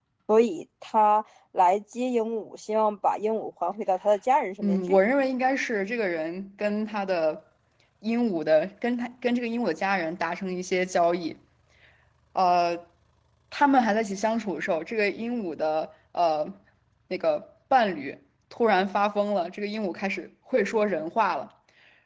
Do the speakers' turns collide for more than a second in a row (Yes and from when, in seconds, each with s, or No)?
No